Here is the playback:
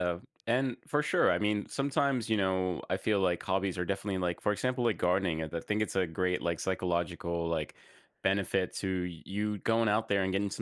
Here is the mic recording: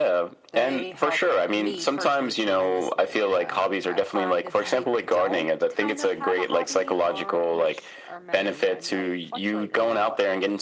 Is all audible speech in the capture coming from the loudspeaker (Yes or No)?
No